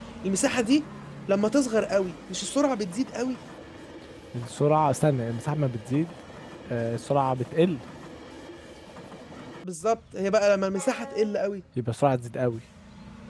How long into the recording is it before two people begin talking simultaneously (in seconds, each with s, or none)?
none